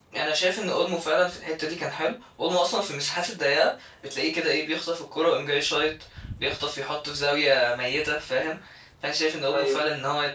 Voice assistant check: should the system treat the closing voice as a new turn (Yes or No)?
No